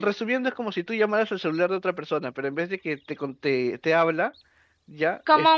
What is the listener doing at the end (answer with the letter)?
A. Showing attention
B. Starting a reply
B